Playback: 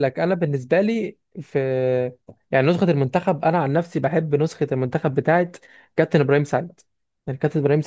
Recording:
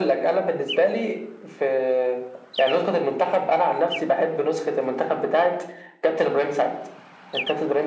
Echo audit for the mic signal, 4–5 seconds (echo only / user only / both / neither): echo only